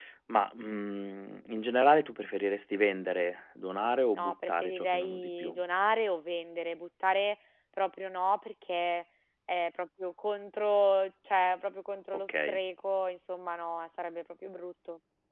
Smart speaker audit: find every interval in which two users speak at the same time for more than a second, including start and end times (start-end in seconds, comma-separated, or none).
4.2-5.6